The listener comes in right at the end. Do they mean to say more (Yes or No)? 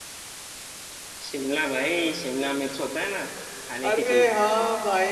Yes